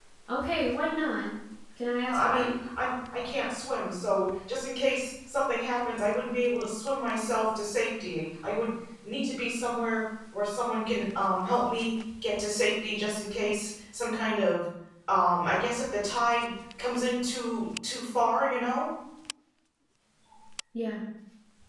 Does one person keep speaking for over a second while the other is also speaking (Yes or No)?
No